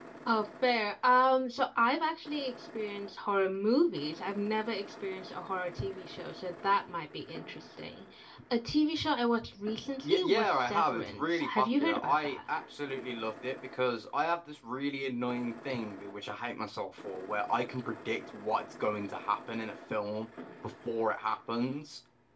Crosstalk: present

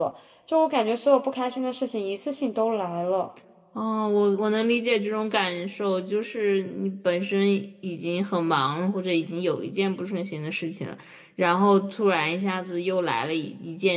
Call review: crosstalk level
none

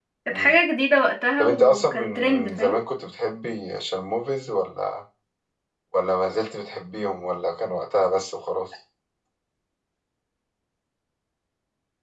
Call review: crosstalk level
present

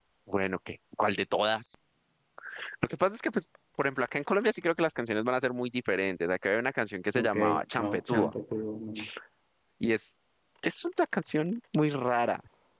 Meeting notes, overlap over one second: none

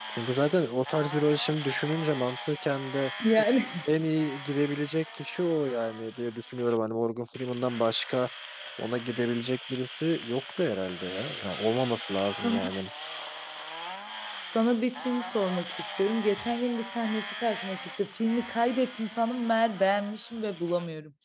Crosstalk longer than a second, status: none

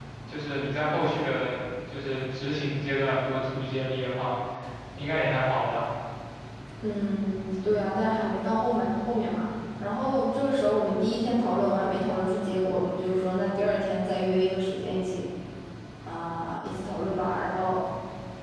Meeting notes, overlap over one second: none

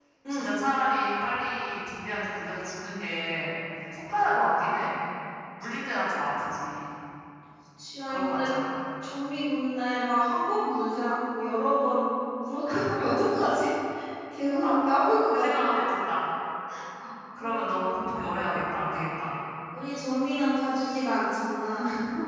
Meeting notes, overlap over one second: none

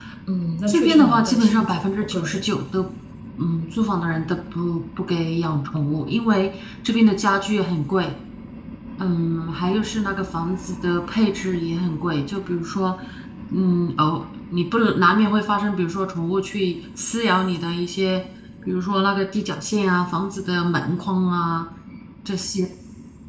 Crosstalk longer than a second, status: present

